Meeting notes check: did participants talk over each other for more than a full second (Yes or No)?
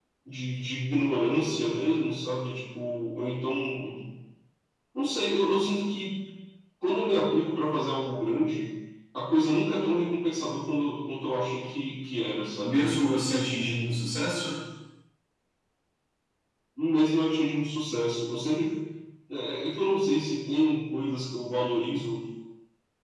No